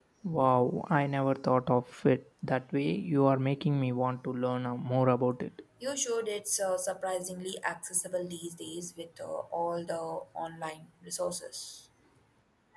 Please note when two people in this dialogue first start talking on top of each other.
none

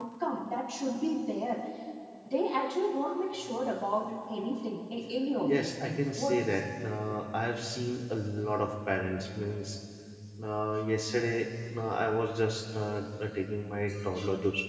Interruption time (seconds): 5.4 s

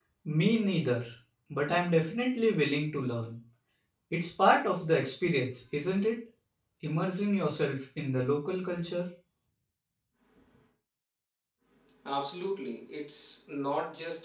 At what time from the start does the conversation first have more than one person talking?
none

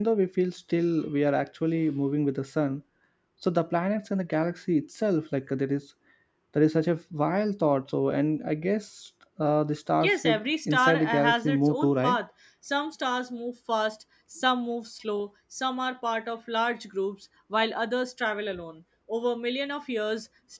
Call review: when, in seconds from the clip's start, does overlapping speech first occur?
10.0 s

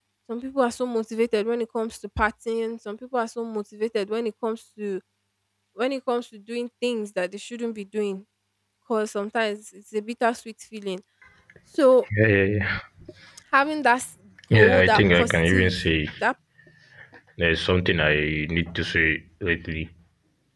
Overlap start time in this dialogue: 14.5 s

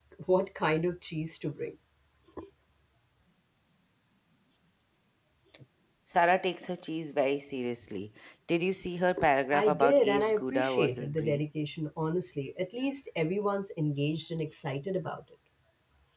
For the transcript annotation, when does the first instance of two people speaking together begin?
9.5 s

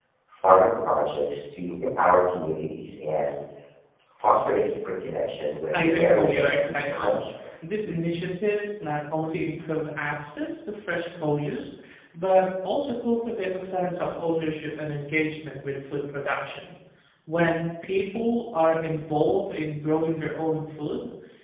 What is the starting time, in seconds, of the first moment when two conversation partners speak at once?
5.7 s

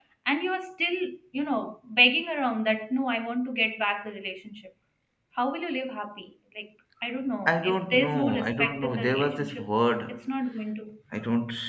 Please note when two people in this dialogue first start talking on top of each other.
7.5 s

